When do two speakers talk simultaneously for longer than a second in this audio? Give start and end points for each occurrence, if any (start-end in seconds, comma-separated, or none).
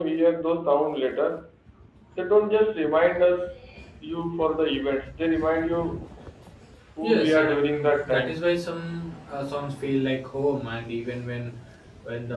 7.0-8.4